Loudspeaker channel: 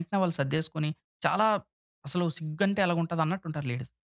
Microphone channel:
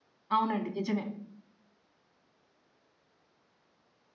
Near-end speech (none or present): present